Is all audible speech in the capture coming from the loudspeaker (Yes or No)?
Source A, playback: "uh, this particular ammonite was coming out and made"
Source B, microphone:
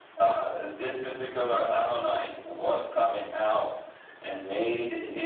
Yes